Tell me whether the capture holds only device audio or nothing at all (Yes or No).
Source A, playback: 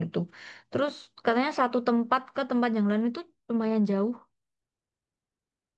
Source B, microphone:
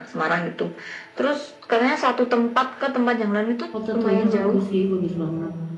No